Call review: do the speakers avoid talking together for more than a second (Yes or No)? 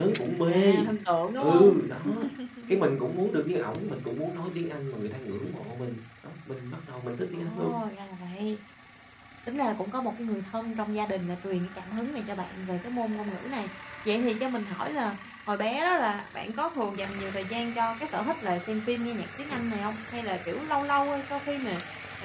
Yes